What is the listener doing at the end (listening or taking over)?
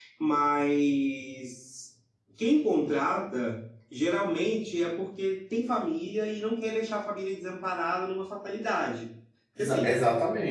taking over